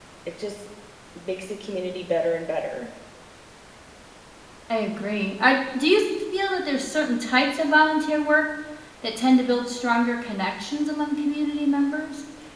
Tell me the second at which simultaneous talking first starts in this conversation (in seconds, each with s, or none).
none